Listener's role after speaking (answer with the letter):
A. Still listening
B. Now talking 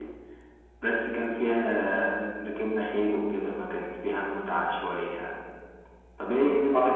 B